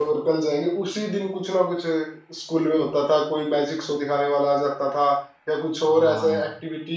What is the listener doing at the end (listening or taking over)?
listening